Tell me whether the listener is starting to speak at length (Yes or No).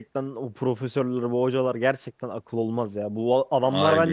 No